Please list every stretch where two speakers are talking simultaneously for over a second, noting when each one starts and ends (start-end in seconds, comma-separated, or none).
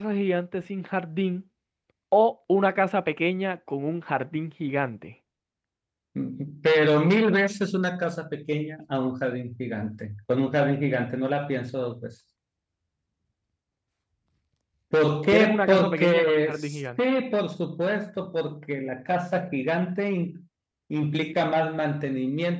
15.3-17.0